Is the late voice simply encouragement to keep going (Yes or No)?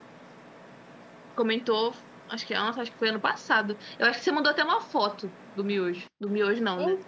No